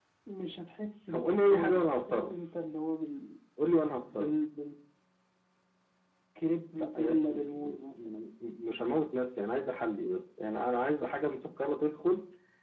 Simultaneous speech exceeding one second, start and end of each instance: 1.1-2.3, 7.0-8.2

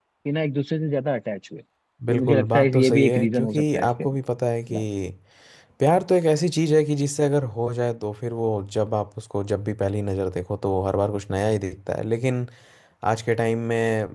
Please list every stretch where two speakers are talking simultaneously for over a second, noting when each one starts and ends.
2.1-4.0

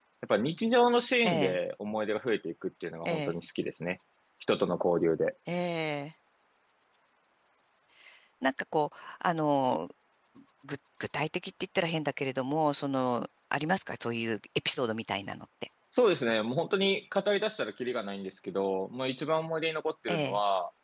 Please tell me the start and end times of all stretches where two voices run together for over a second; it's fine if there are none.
none

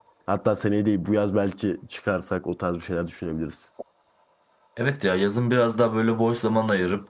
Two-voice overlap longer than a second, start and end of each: none

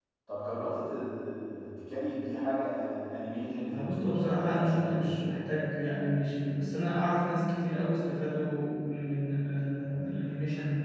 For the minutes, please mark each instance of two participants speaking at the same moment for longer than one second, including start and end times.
3.7-5.4

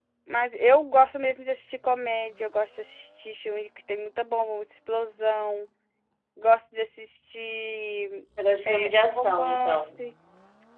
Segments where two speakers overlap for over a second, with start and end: 8.7-10.0

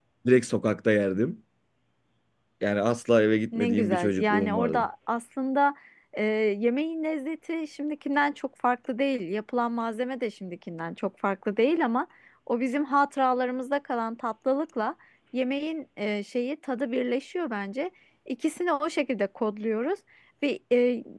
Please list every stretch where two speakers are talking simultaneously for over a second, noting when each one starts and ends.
3.5-4.8

